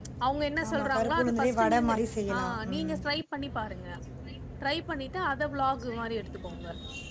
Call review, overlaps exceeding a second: present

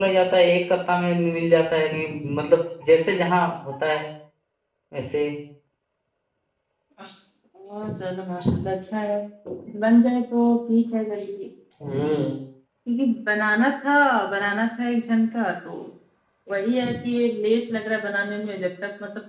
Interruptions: none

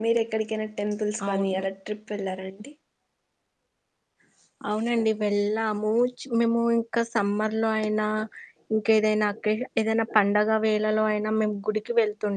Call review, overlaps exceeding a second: none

